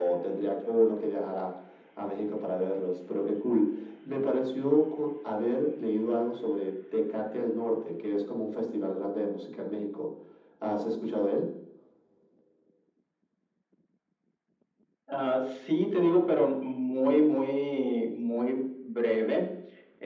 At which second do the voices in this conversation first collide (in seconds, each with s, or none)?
none